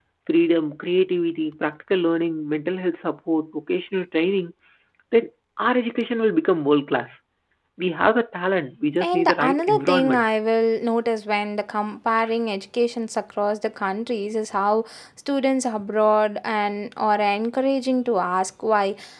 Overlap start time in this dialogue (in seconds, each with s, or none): 9.0 s